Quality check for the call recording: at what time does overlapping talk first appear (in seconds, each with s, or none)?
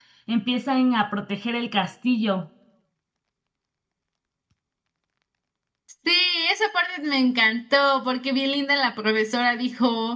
none